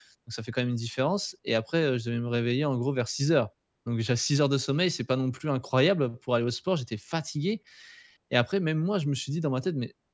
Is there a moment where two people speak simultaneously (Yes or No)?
No